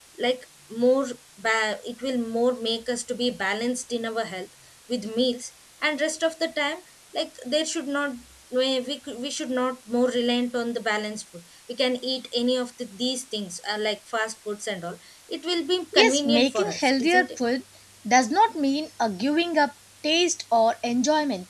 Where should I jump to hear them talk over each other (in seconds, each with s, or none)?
15.9 s